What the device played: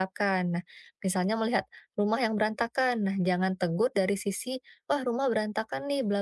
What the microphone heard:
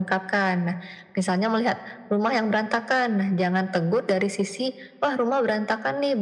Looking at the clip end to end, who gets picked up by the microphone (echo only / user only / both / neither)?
echo only